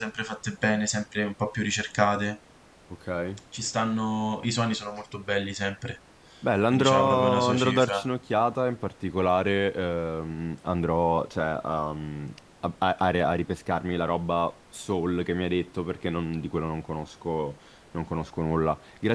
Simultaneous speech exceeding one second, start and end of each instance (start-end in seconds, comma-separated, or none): 6.7-8.0